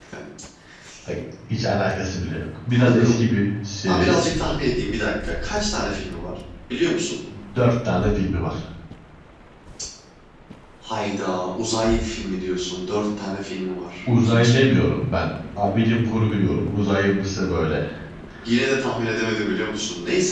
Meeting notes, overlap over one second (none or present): none